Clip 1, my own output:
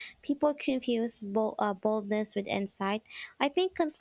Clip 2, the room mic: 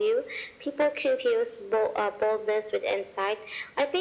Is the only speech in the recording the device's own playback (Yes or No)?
Yes